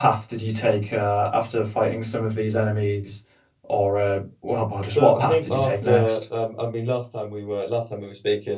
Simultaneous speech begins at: 4.9 s

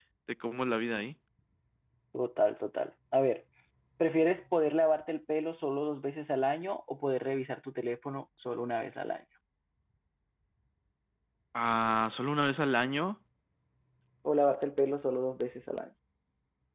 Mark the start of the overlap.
none

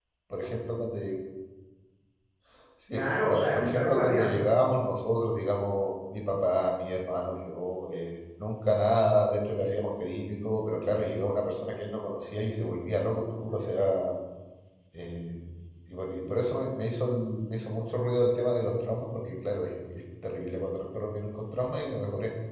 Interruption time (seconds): 2.9 s

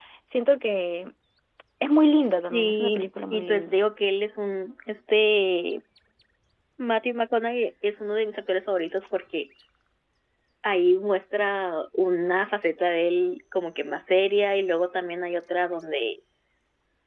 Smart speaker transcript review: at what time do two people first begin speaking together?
2.5 s

